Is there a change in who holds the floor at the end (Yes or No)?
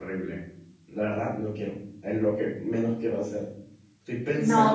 Yes